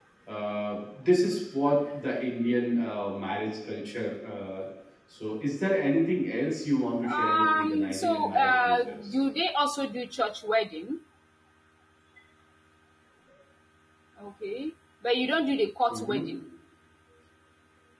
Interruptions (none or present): present